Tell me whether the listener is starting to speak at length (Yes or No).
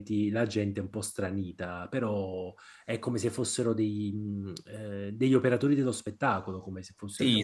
Yes